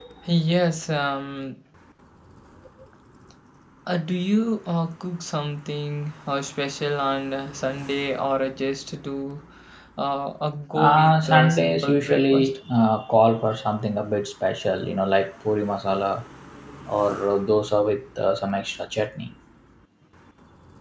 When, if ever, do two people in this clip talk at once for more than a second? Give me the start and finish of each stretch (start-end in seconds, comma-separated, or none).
10.8-12.6